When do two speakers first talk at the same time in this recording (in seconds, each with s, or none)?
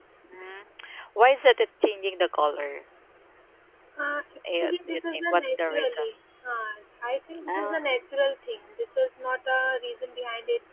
4.6 s